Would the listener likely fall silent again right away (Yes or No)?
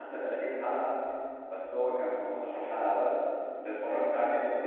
No